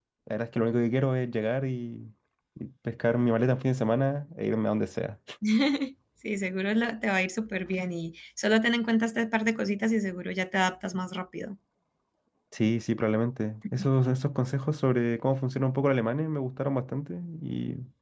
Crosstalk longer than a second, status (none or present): none